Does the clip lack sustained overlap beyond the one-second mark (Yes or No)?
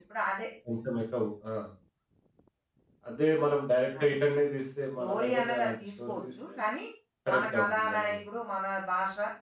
No